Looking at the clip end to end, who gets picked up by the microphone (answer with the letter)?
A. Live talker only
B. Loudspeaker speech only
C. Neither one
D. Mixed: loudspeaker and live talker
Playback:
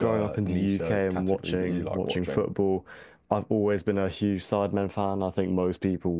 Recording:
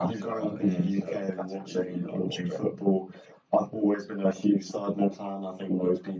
D